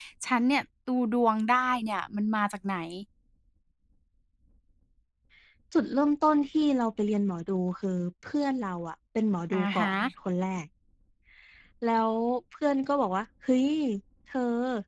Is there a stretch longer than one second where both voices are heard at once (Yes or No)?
No